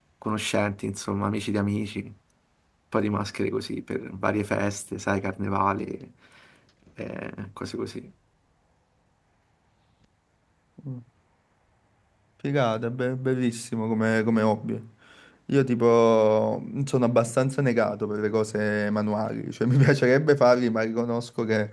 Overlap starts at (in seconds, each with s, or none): none